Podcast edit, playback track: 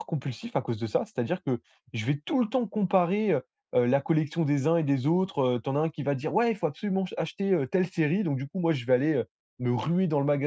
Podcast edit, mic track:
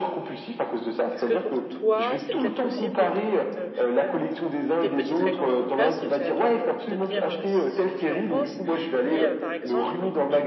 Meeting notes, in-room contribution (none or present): present